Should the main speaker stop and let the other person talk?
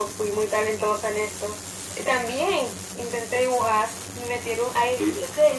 No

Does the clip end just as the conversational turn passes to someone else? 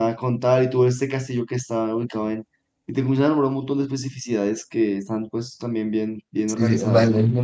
Yes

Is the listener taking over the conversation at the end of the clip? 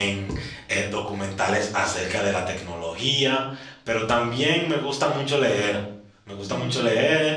No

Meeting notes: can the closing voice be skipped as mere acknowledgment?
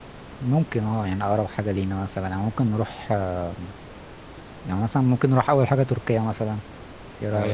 No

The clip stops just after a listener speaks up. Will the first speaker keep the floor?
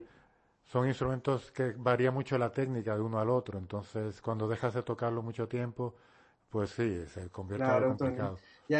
No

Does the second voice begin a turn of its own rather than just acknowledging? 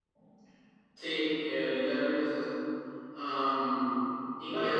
No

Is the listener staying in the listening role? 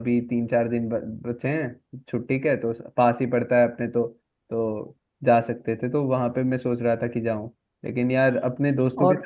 Yes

